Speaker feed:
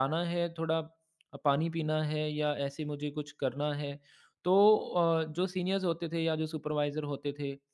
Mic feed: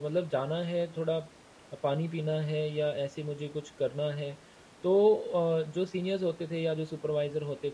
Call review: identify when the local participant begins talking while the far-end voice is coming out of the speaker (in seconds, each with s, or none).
none